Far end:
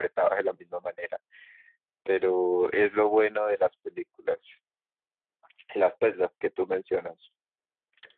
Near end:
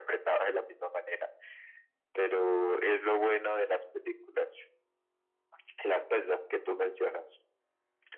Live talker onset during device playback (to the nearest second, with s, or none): none